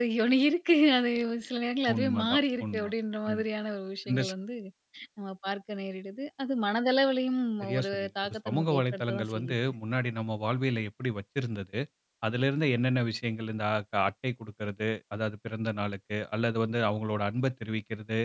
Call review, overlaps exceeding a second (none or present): present